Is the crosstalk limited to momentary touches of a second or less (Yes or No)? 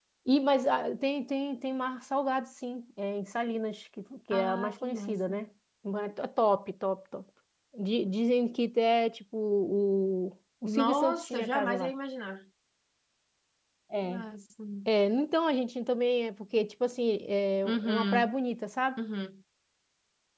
No